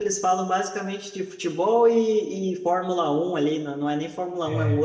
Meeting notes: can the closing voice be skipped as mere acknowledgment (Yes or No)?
Yes